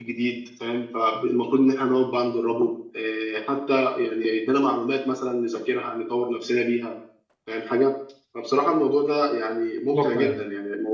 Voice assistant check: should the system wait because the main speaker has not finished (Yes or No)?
Yes